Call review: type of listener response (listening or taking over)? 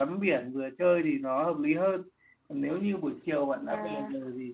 listening